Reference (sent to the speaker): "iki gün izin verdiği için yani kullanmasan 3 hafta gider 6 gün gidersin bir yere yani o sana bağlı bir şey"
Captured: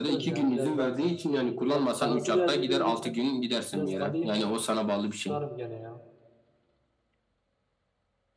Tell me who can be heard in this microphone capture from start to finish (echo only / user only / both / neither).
both